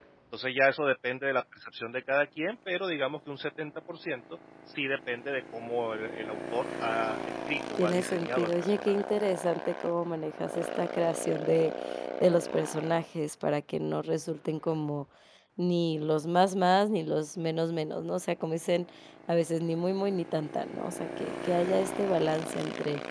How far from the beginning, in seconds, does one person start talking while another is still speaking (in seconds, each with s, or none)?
7.8 s